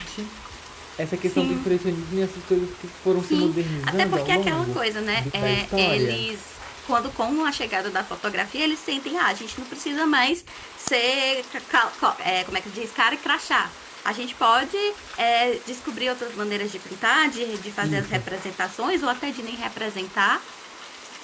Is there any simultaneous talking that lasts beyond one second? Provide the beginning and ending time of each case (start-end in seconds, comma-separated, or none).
3.2-6.3